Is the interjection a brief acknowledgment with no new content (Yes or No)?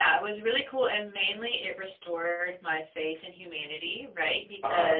Yes